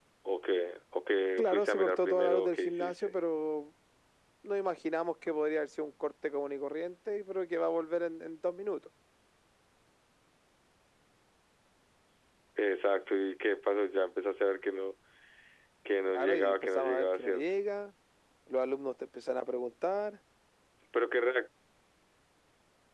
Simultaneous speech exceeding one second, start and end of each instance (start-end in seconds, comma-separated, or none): 1.4-2.9, 16.1-17.4